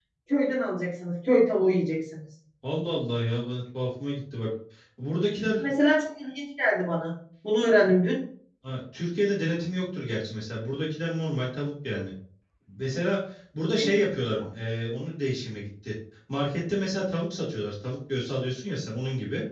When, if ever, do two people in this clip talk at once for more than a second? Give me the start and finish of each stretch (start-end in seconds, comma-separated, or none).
none